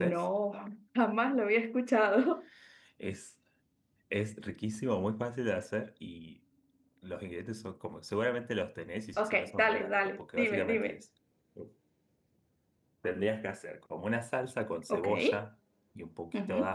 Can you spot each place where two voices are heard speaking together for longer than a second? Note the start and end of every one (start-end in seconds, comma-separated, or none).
9.2-11.0